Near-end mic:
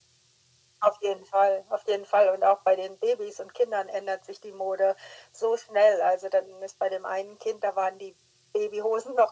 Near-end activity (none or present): none